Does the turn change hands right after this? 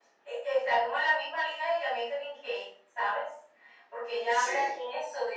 No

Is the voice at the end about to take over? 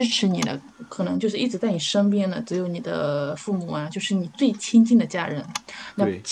No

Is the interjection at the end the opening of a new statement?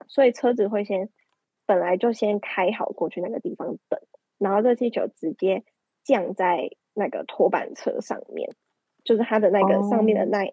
No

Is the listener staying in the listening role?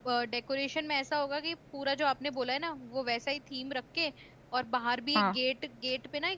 Yes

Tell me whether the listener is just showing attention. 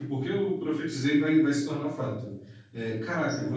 Yes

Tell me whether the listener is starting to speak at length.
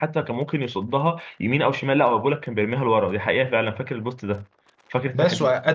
Yes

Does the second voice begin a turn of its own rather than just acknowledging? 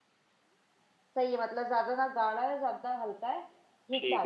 Yes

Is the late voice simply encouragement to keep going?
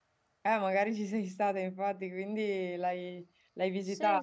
No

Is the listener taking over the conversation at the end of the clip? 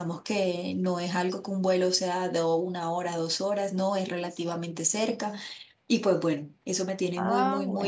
Yes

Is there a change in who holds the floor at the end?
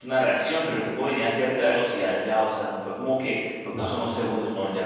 No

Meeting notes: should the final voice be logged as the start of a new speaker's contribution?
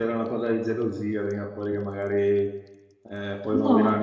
No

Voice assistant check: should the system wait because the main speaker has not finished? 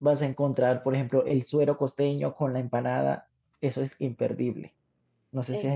No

